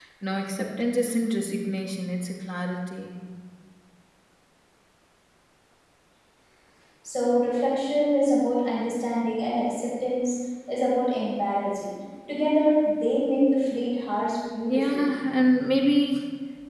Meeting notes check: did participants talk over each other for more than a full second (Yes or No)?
No